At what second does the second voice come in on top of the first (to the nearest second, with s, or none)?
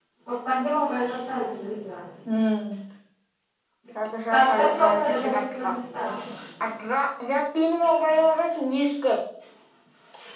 4 s